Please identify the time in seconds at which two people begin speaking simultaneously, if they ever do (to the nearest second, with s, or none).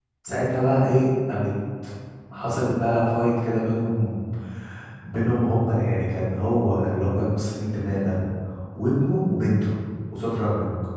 none